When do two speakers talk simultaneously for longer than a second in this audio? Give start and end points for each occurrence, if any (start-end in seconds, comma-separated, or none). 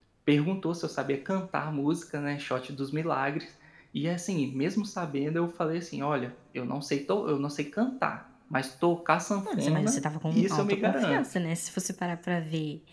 9.5-11.2